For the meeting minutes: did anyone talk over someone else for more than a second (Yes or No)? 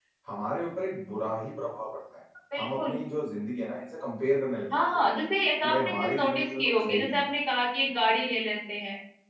Yes